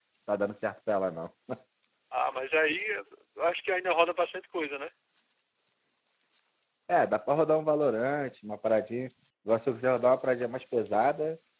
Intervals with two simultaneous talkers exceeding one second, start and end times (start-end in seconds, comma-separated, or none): none